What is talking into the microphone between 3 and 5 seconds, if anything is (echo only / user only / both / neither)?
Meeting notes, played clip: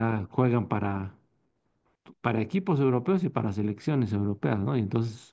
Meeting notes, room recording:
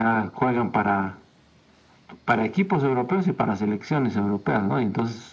echo only